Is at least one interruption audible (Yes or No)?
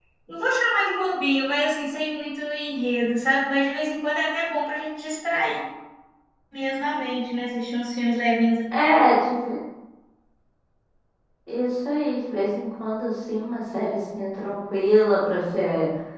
No